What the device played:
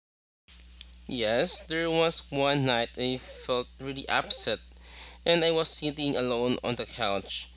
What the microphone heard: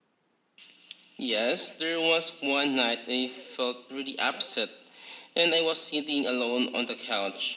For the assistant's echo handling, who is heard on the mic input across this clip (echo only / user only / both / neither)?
echo only